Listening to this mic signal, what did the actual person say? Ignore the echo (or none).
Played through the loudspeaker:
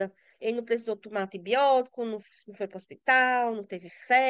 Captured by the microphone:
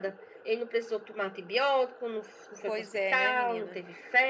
Pois é, né, menina?